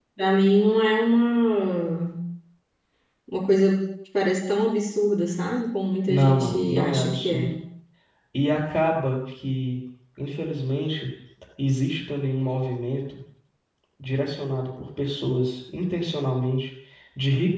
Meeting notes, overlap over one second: present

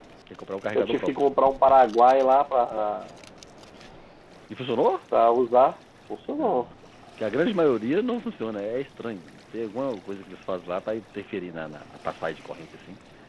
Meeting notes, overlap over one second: none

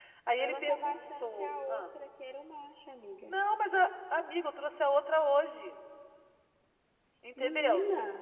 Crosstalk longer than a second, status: present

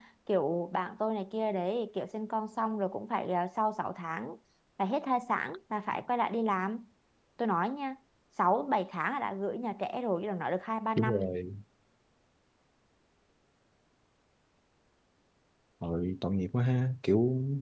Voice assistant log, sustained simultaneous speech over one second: none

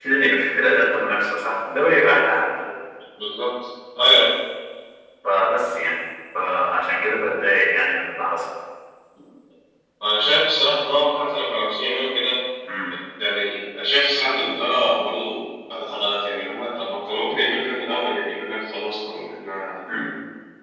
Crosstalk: none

